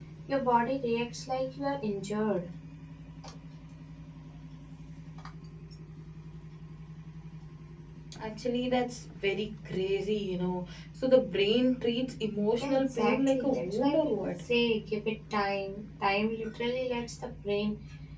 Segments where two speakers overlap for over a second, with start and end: 12.6-14.4

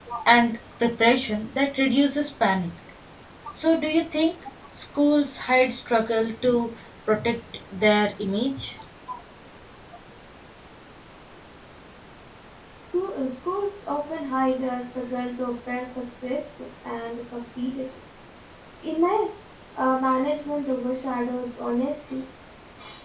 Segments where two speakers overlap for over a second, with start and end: none

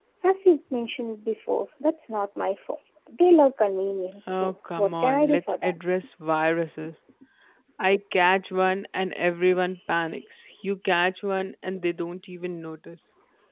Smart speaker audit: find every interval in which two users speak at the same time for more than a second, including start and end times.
4.3-5.7

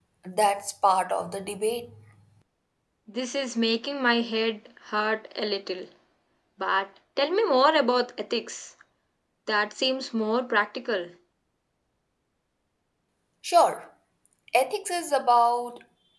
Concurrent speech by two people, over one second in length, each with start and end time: none

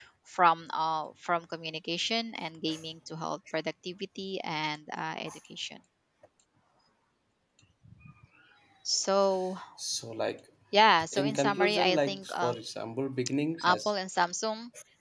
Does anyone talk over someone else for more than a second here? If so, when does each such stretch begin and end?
11.1-12.5

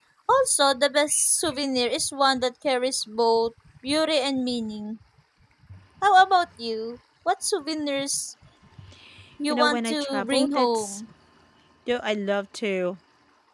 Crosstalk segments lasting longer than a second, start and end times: 9.5-11.0

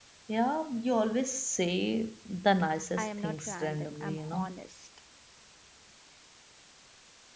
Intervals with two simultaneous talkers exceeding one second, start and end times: 3.0-4.5

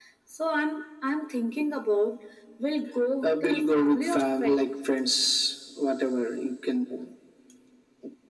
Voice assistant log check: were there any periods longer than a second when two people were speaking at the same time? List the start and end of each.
3.2-4.7

